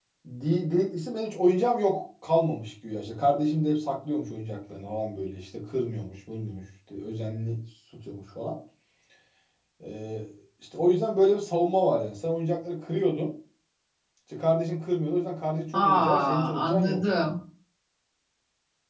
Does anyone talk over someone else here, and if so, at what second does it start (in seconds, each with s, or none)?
15.7 s